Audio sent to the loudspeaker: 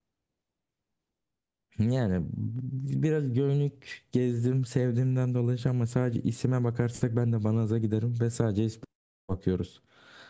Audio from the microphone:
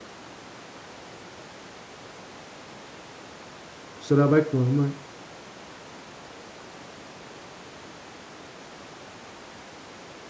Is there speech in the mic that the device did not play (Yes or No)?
Yes